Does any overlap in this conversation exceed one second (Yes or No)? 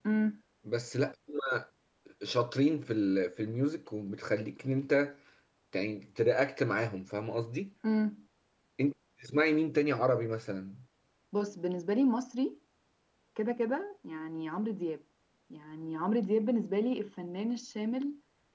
No